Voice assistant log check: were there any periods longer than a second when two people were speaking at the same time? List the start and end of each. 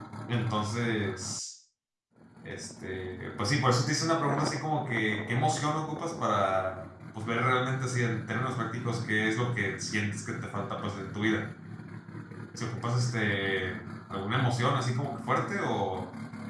none

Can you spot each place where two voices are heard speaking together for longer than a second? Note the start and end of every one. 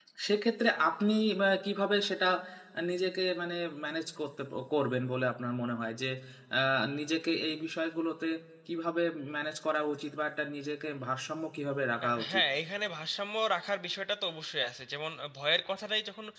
none

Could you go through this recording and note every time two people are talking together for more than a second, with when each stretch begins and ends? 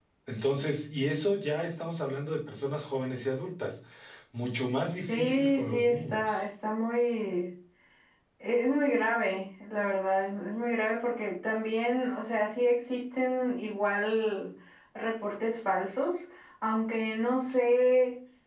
5.1-6.3

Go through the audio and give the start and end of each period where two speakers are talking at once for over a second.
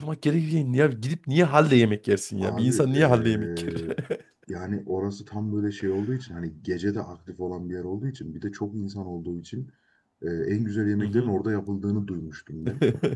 2.4-3.8

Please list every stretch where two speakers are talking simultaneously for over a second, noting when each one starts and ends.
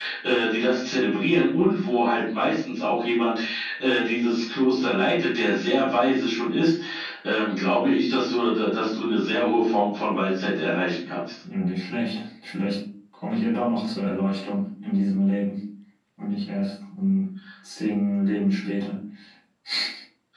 none

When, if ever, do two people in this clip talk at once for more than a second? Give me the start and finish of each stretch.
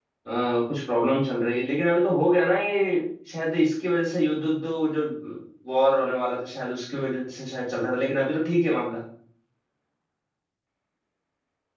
none

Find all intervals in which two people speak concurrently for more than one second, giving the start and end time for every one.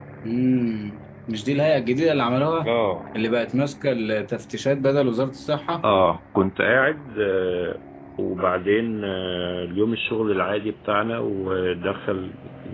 none

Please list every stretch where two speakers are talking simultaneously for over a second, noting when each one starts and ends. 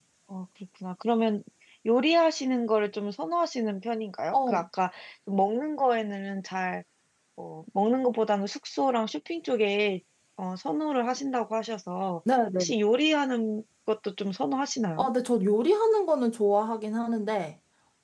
none

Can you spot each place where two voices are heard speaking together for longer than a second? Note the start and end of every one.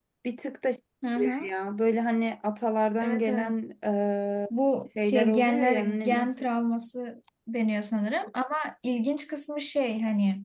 5.0-6.4

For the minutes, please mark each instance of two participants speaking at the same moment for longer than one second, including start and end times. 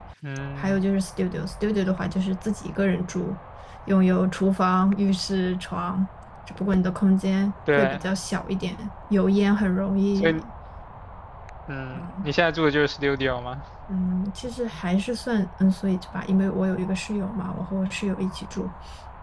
none

